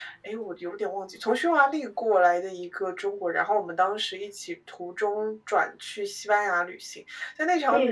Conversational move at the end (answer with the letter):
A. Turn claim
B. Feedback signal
B